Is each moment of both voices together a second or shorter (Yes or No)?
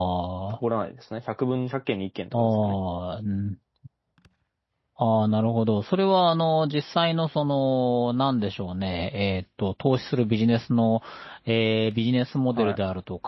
Yes